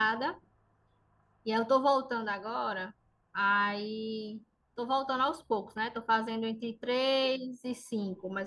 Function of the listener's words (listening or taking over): listening